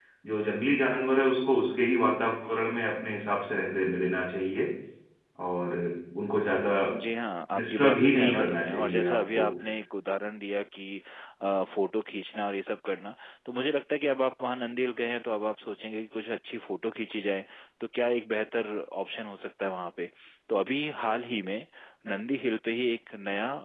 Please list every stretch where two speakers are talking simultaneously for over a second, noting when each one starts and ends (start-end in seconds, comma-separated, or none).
7.6-9.5